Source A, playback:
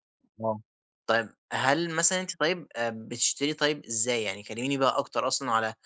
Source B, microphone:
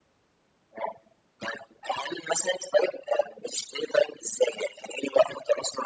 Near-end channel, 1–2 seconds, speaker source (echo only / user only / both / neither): echo only